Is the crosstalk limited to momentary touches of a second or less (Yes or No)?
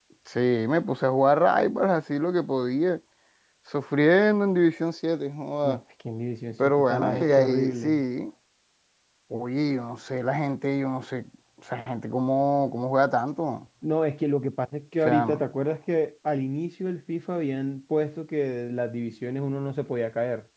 No